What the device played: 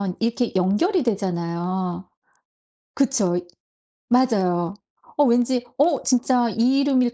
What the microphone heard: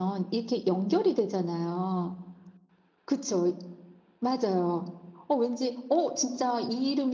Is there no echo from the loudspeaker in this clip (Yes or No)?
No